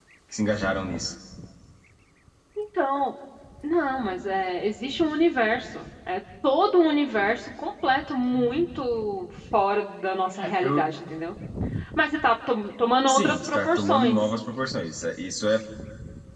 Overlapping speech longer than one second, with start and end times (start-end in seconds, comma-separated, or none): 13.1-14.3